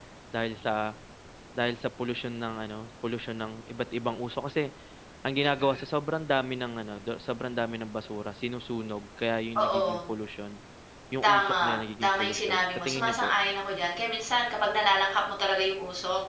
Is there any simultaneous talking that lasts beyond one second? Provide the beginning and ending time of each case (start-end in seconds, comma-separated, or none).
11.2-13.3